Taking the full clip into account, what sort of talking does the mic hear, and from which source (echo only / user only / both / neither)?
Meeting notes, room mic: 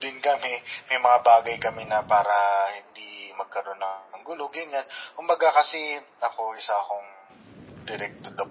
echo only